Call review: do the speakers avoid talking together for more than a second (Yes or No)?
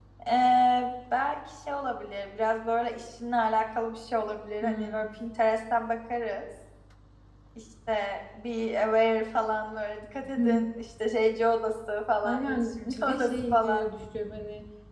No